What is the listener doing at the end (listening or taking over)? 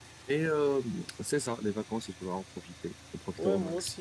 taking over